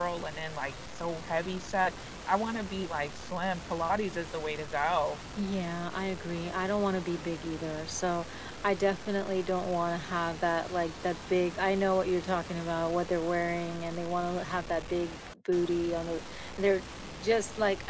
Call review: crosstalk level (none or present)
none